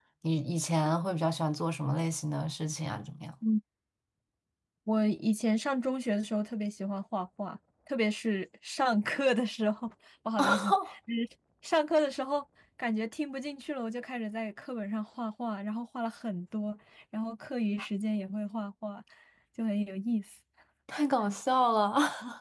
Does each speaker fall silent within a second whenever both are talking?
Yes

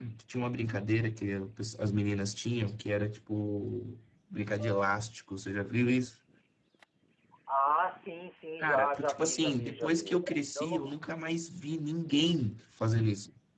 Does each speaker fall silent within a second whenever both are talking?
No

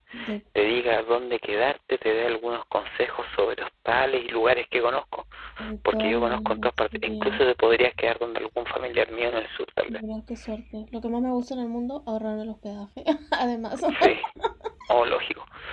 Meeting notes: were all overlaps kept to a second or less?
No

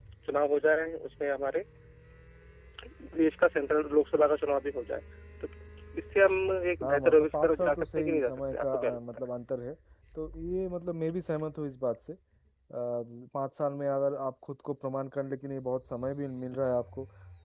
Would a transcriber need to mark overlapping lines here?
Yes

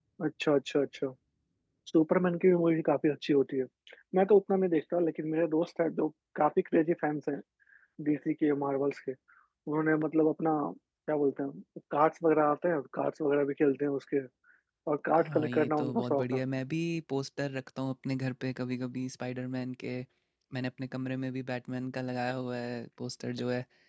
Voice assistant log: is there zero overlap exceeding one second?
No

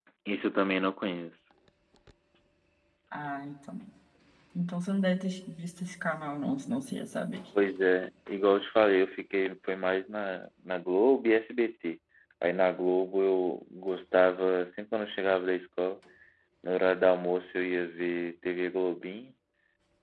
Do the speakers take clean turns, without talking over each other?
Yes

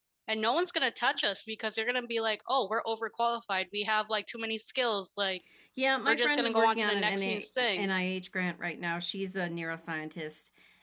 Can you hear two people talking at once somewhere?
Yes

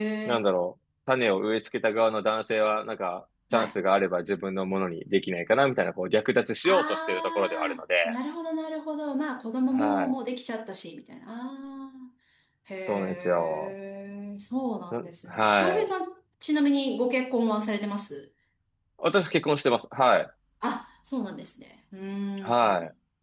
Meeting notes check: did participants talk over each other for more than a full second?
Yes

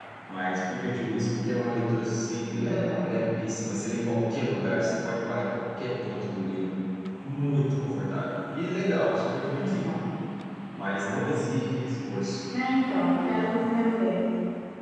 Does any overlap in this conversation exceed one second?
No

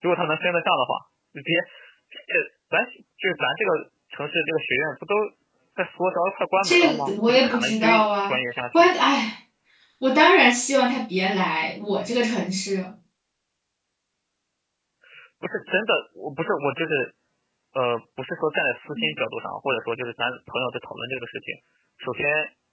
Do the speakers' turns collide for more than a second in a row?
Yes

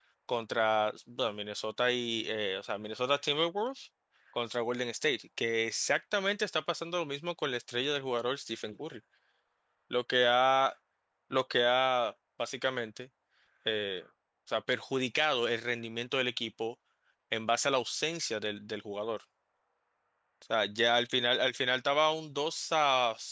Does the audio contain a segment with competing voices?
No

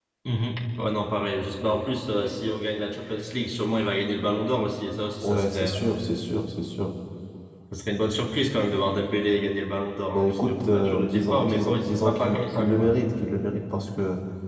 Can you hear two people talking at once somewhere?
Yes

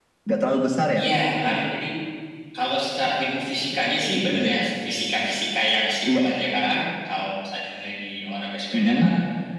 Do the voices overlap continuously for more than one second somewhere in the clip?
No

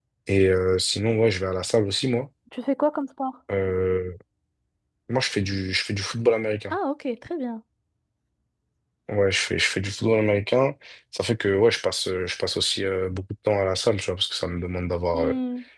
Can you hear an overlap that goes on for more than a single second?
No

